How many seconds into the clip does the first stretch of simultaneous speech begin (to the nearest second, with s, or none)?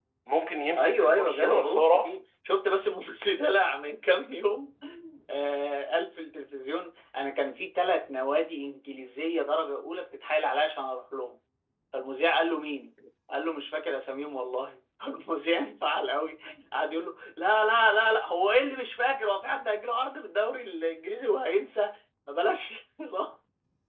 1 s